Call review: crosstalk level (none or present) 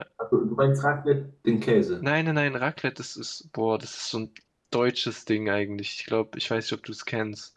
none